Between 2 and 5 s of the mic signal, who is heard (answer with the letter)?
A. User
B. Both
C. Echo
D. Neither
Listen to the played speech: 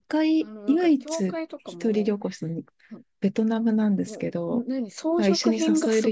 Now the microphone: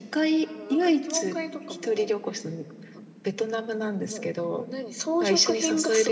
C